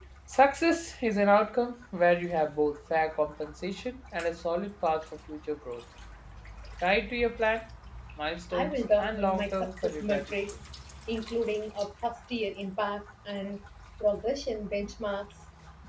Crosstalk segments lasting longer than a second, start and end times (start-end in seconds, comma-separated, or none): 8.5-10.3